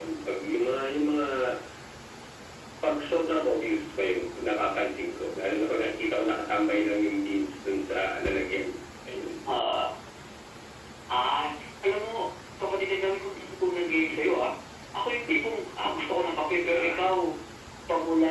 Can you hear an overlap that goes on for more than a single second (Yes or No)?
No